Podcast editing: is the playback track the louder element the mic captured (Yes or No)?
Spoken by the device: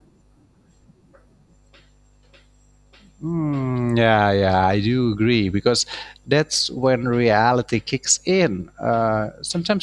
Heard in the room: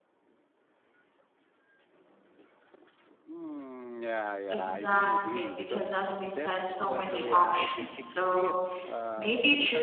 No